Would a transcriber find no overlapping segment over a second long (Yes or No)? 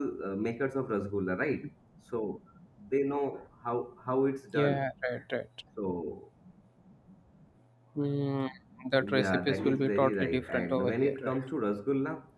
No